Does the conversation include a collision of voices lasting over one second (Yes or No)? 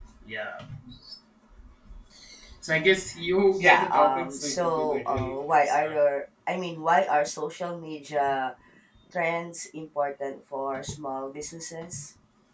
Yes